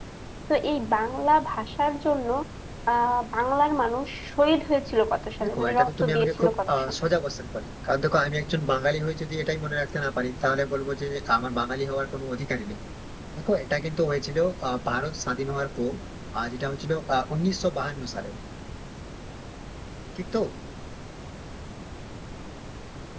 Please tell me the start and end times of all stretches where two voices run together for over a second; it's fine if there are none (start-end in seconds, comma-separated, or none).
5.4-7.0